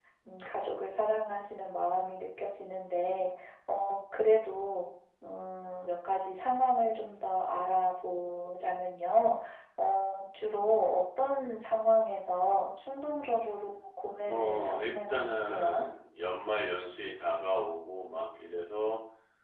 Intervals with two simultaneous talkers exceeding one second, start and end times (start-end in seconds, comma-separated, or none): 14.2-15.8